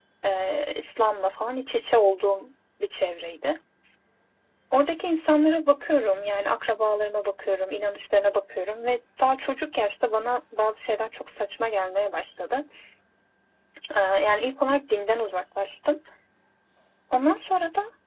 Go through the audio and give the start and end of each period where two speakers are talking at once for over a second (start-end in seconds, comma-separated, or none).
none